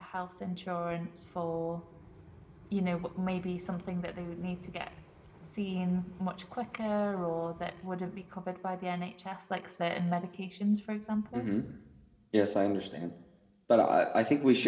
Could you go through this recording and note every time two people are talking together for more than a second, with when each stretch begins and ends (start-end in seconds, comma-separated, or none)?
none